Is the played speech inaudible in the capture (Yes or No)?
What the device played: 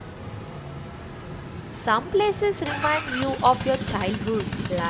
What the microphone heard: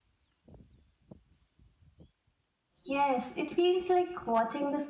Yes